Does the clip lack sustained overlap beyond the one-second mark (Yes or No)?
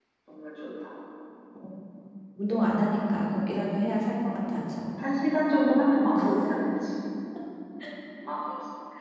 Yes